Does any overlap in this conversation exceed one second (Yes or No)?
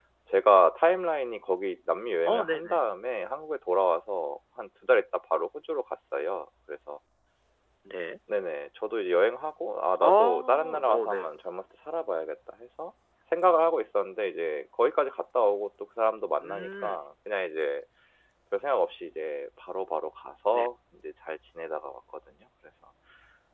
Yes